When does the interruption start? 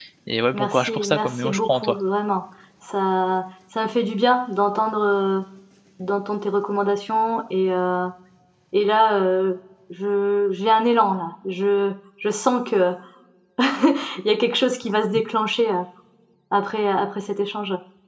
0.5 s

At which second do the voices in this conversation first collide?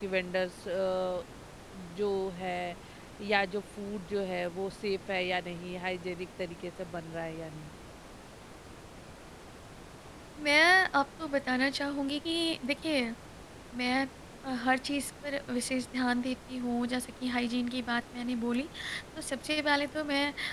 none

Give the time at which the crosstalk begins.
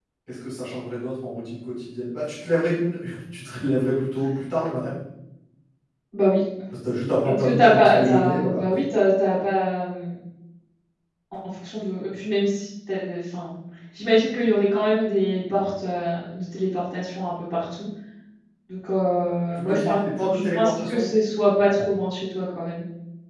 7.2 s

